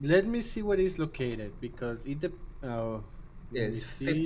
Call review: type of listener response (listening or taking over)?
taking over